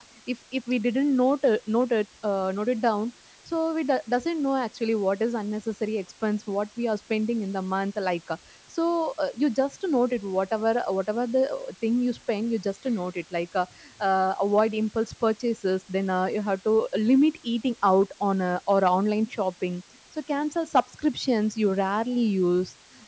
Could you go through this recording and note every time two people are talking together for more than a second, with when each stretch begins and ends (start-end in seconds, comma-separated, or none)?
none